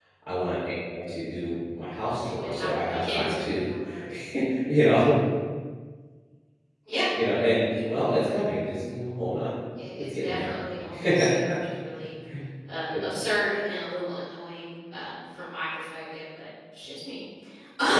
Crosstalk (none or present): present